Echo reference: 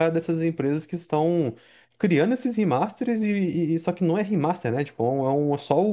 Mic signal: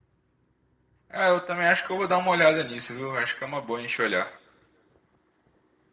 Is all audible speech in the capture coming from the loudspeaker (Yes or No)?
No